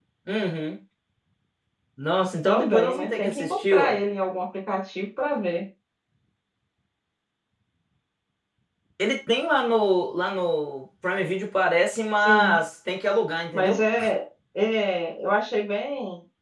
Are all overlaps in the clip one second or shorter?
No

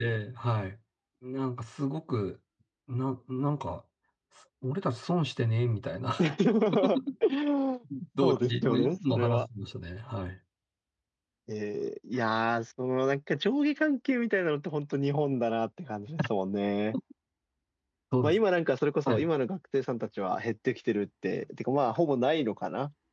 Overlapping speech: Yes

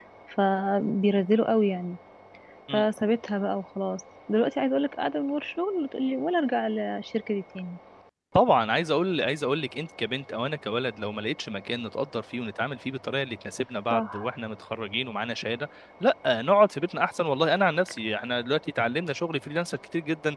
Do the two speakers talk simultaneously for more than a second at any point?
No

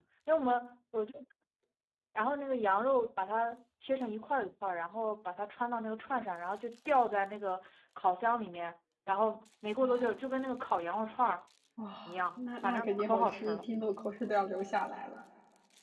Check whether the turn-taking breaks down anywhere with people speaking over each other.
Yes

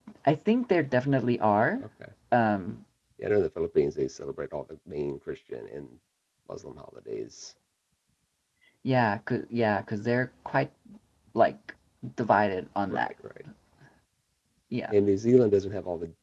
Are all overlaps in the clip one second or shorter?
Yes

